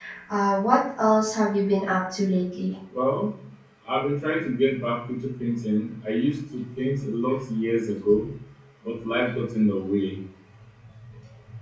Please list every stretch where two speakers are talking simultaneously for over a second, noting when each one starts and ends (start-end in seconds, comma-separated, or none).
none